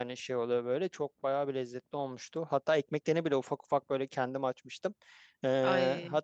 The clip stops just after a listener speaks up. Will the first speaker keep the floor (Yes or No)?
Yes